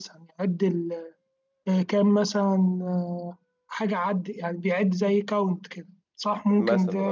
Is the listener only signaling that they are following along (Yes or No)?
No